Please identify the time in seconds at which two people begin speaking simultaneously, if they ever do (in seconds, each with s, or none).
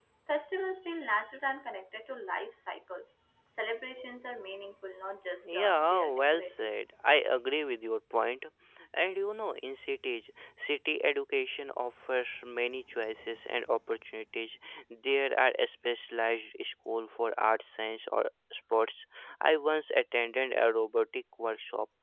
5.4 s